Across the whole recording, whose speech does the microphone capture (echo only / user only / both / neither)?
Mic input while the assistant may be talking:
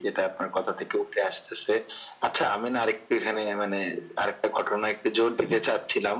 echo only